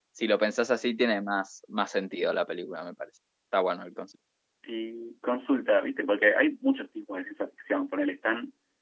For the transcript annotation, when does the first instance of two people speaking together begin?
none

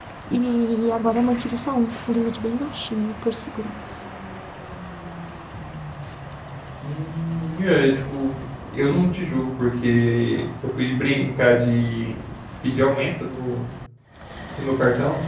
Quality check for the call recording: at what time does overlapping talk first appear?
none

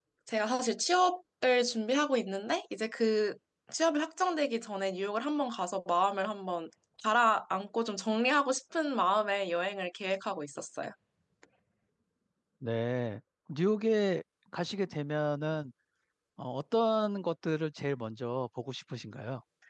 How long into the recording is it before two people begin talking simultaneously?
none

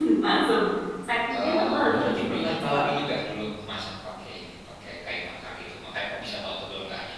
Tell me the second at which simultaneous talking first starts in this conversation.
1.4 s

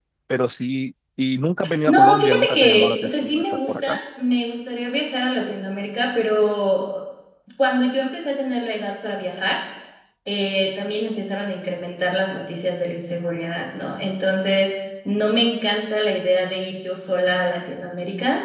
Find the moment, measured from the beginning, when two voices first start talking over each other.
1.9 s

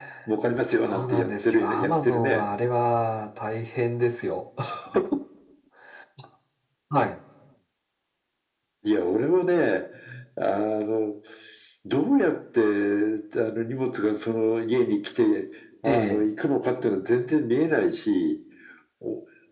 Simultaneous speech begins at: 0.7 s

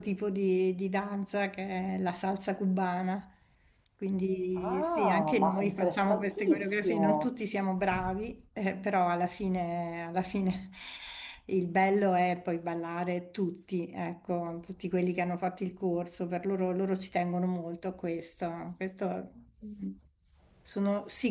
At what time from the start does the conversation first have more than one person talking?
4.6 s

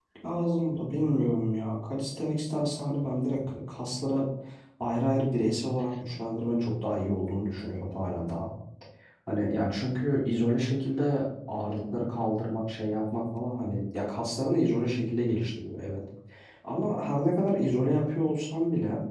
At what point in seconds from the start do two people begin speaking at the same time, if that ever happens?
none

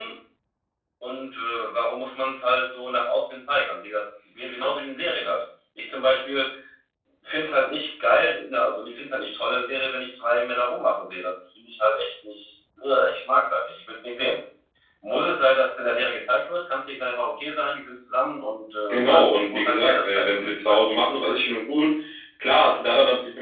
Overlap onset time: 18.9 s

